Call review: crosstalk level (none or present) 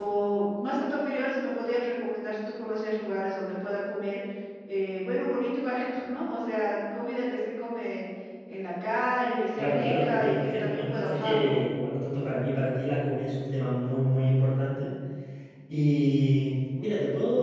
present